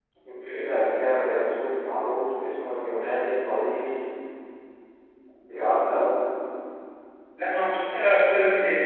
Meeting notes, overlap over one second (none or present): none